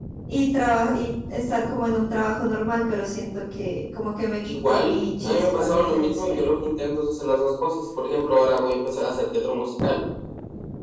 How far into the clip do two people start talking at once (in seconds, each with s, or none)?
4.4 s